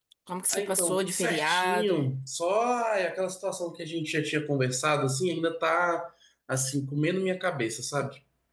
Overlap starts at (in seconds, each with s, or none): 0.5 s